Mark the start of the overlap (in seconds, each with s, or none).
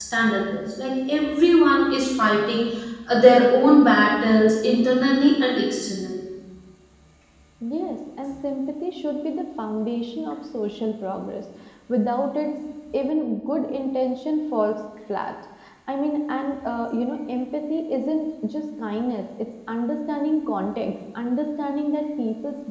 none